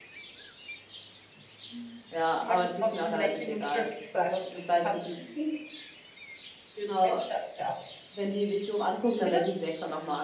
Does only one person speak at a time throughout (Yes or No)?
No